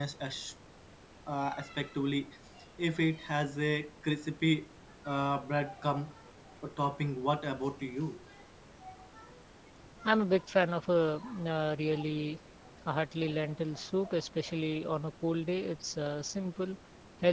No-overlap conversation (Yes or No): Yes